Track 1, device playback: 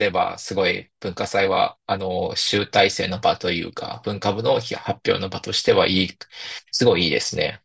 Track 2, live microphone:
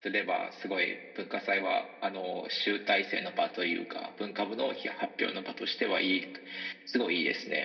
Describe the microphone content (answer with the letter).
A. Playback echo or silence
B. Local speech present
A